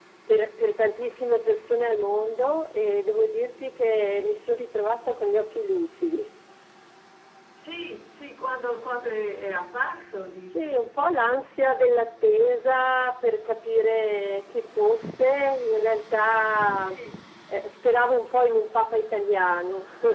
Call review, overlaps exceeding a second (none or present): none